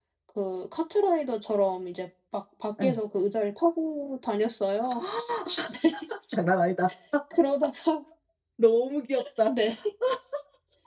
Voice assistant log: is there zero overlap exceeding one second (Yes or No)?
Yes